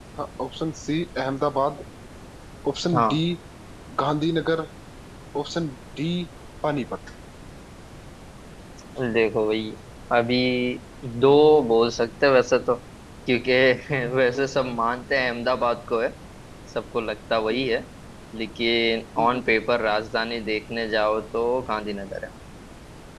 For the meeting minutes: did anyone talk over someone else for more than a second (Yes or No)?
No